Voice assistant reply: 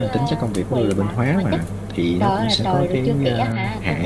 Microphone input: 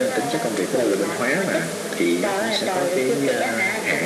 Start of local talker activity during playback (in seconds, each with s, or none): none